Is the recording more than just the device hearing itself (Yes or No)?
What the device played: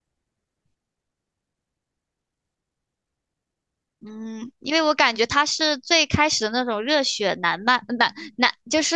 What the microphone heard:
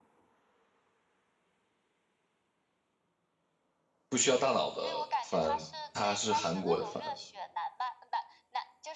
Yes